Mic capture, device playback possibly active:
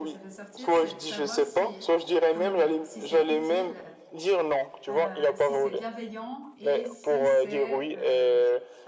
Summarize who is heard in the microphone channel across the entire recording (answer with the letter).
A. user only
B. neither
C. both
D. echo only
C